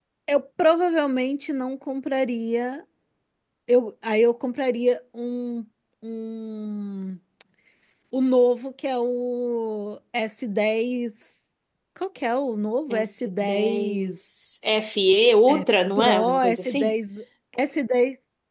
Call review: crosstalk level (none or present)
present